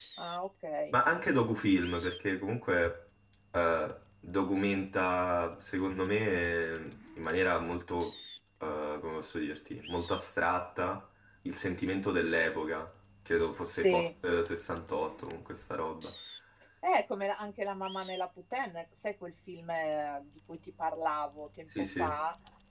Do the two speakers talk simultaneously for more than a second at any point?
No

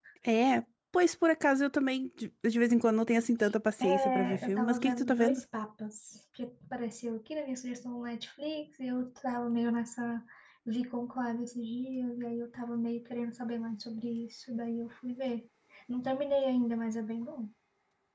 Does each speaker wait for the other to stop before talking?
No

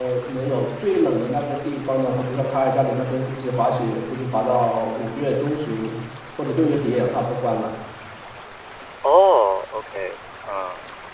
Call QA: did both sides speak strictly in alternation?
Yes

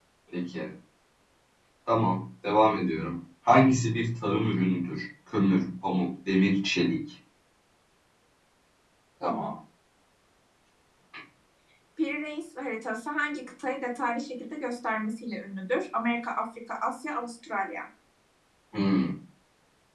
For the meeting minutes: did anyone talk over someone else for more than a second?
No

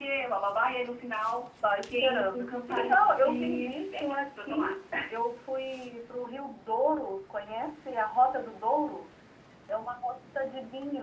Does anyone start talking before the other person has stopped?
Yes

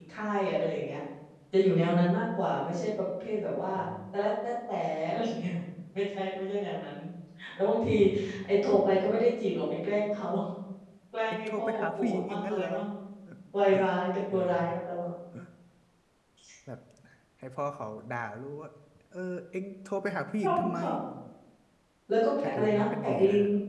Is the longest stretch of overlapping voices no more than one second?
No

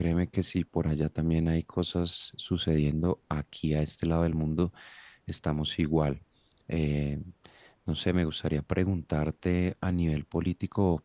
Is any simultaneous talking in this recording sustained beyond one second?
No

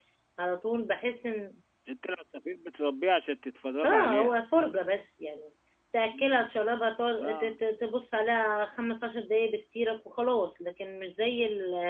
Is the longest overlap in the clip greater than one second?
No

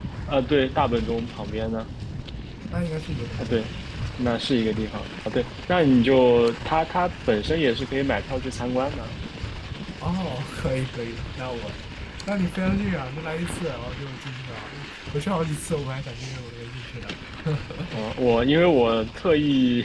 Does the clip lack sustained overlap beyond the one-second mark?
Yes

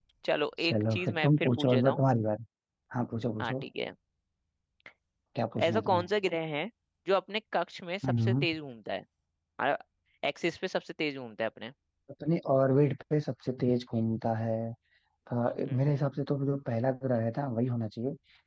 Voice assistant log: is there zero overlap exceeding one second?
No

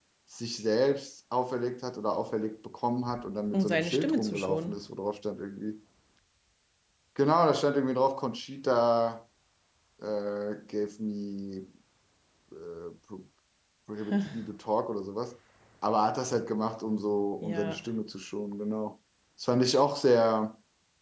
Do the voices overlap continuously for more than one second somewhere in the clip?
Yes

